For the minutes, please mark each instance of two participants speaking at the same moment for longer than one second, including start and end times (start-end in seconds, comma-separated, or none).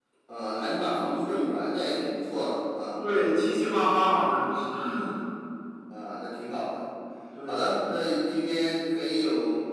none